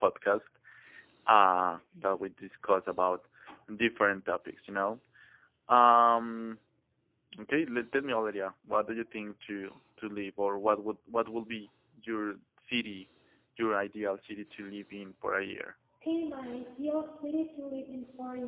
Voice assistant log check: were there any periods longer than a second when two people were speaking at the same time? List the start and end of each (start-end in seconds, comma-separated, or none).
none